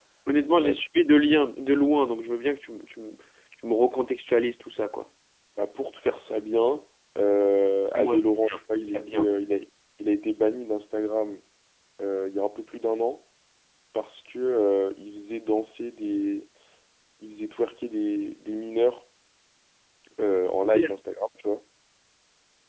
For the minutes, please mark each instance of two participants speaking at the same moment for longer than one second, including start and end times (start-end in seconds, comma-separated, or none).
7.9-9.3